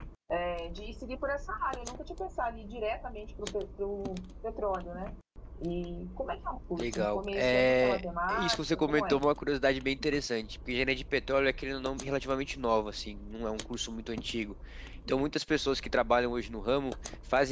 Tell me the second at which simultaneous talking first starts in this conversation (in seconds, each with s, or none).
6.8 s